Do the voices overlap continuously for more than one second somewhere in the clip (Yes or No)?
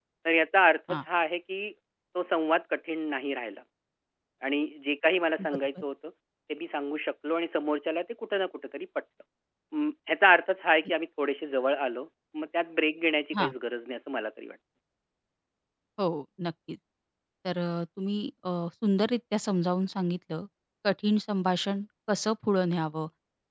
No